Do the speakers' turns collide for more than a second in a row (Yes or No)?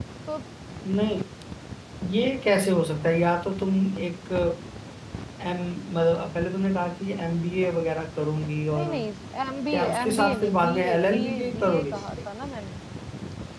Yes